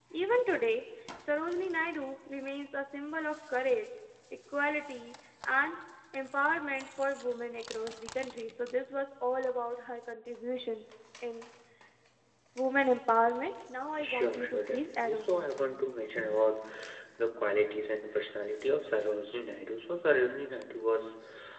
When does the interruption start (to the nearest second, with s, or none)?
14 s